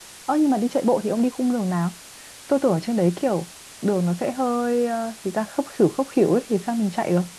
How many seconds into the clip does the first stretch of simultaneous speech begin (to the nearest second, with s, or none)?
none